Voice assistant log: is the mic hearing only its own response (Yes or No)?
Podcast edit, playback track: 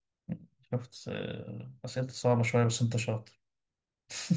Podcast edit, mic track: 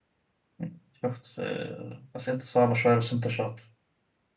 Yes